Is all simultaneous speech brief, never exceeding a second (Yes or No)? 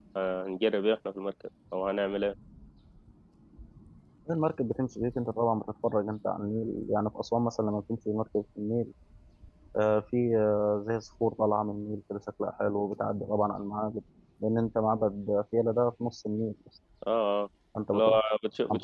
Yes